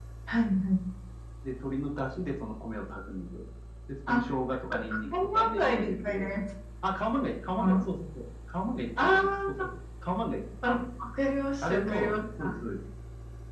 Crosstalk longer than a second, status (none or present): present